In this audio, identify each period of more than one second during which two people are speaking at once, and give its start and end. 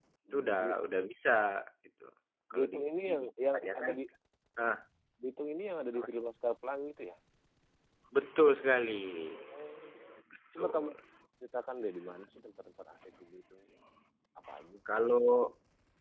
2.5-3.9

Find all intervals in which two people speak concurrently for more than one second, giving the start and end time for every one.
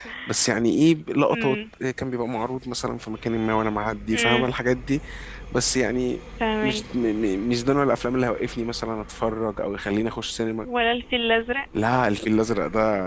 none

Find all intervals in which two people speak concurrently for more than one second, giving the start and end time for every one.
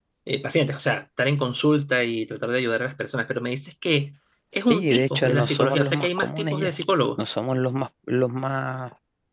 4.7-6.8

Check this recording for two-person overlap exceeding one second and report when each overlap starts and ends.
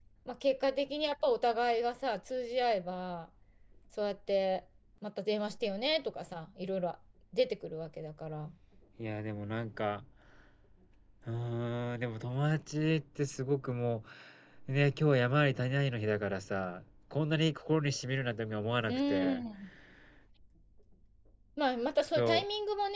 none

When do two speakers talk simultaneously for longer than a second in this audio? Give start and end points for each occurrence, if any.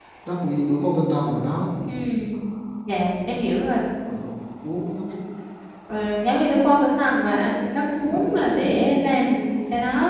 none

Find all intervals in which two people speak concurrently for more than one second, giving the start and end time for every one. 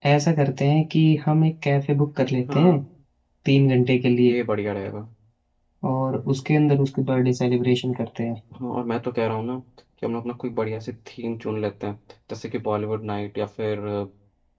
none

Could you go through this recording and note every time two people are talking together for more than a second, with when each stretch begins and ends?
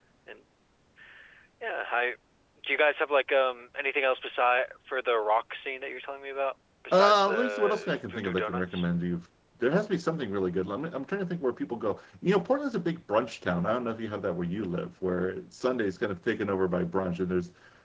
6.9-8.8

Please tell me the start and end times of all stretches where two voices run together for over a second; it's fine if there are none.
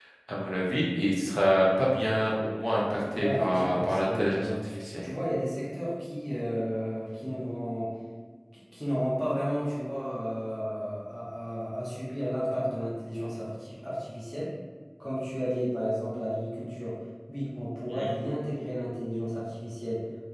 3.1-4.6

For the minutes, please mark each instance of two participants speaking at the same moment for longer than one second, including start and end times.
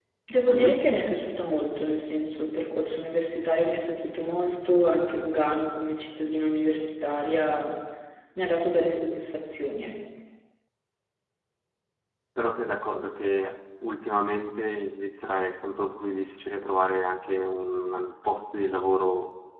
none

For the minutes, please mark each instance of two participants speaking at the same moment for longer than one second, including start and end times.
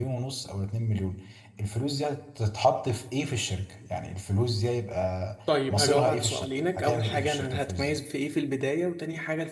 5.7-8.0

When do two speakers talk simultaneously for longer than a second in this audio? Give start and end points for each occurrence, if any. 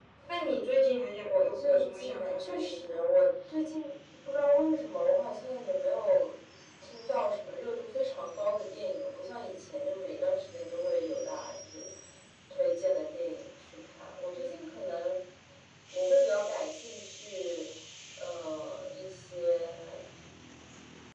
1.2-3.0

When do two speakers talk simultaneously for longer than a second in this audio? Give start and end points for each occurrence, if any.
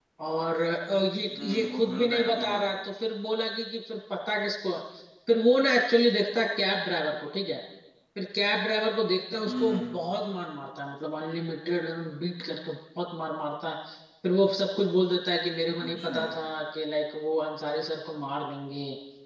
1.3-2.6

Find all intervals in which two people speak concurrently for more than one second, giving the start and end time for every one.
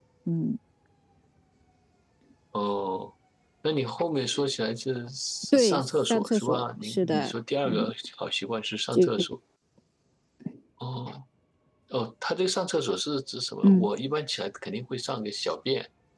5.5-7.3

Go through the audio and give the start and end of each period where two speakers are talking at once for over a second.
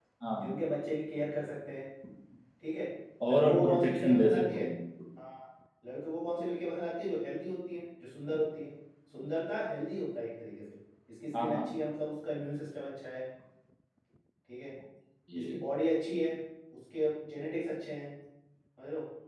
3.3-4.6

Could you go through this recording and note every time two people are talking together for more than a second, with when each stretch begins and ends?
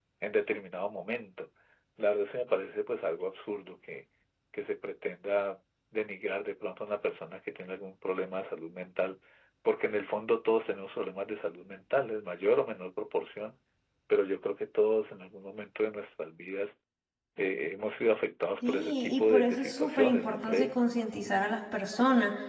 18.6-20.8

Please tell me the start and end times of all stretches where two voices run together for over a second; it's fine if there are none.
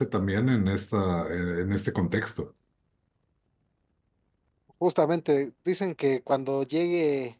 none

